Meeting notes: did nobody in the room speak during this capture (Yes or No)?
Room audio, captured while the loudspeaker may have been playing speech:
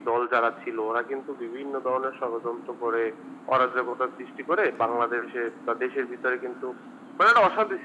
Yes